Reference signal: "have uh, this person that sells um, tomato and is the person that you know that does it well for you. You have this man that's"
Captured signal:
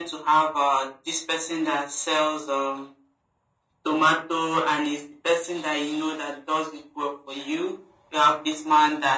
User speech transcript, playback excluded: none

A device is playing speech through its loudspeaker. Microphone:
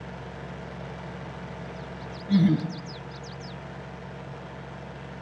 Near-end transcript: hmm

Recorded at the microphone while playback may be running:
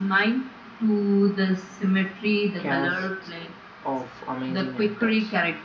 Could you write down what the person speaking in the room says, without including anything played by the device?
casts of amazing actors.

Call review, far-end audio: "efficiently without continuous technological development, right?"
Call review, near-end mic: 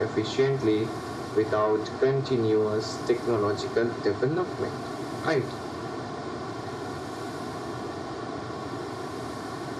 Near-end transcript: none

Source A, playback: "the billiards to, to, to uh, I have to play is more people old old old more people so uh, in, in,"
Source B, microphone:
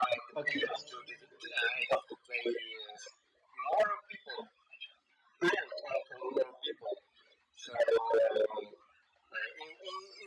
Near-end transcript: okay.

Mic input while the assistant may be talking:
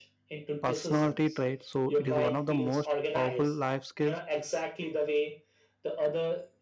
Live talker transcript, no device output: personality trait. So it is one of the most powerful life skills

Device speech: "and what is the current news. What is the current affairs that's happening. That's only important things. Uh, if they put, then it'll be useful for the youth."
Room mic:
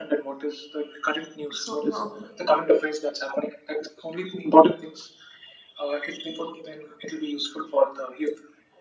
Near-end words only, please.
So your

